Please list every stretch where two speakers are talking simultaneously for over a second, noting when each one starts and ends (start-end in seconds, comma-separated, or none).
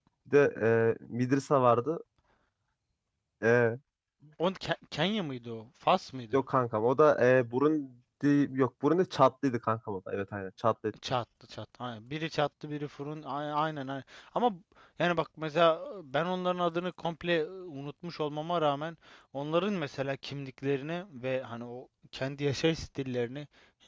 none